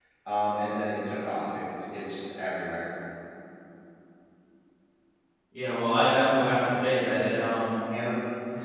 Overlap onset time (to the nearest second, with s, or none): none